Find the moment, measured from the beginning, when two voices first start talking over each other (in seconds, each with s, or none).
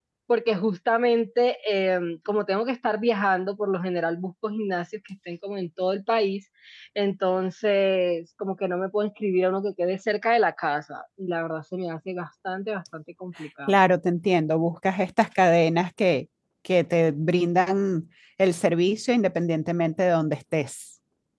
none